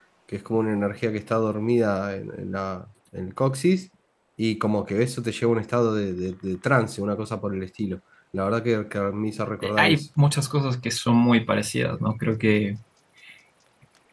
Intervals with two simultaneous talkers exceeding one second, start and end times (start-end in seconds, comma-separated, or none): none